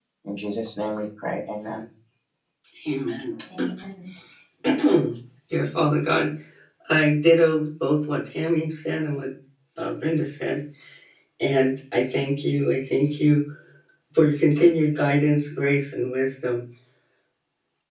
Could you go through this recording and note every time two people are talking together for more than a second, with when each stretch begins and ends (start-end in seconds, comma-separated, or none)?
none